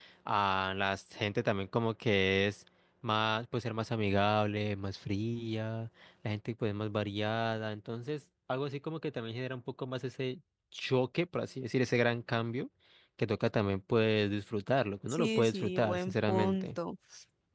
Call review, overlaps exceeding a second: present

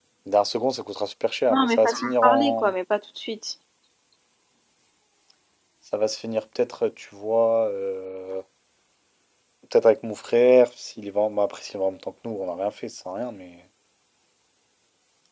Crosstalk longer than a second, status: present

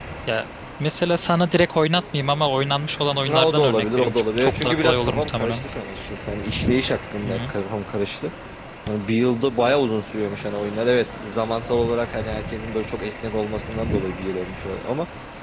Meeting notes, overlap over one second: present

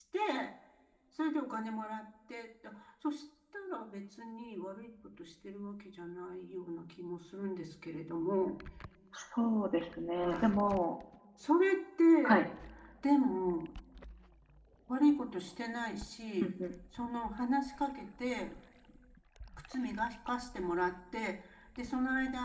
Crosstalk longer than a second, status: none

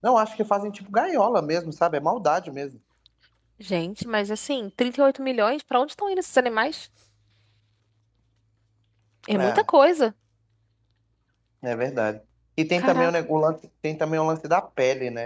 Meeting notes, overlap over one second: none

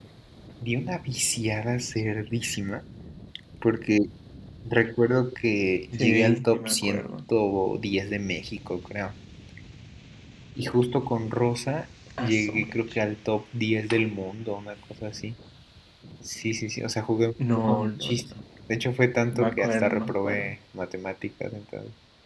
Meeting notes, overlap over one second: present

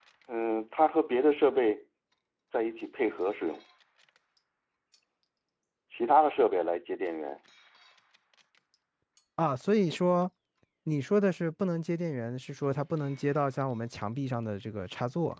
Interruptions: none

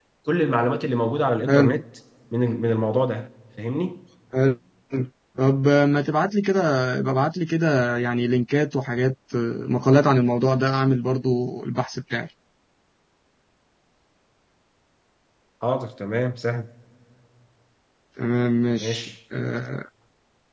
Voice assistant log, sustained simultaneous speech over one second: none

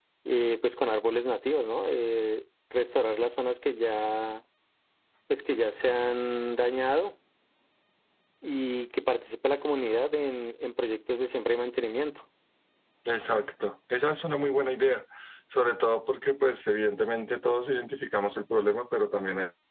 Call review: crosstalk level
none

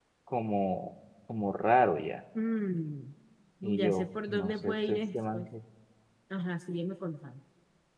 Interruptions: present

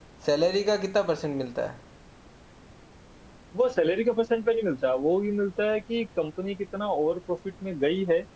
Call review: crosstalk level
none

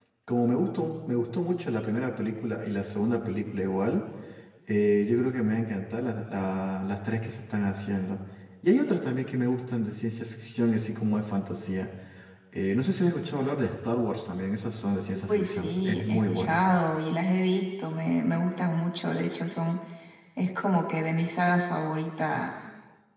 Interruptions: present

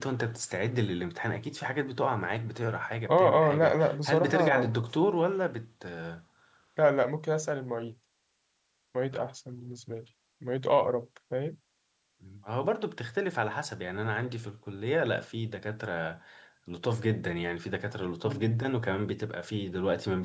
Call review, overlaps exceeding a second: present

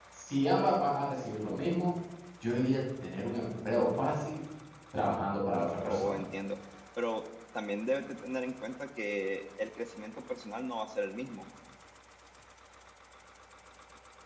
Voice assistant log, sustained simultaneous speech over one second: none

